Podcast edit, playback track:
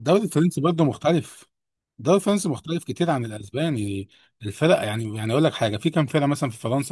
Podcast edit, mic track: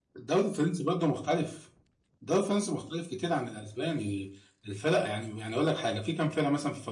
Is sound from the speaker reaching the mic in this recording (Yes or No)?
Yes